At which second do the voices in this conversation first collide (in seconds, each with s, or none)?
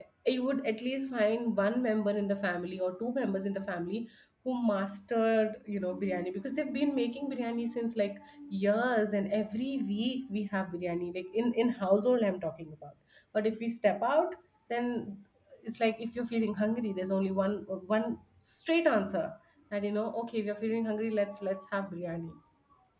none